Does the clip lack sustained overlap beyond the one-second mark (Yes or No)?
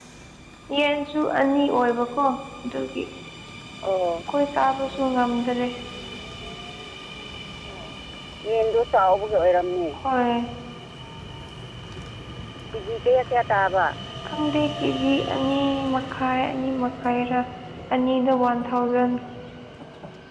Yes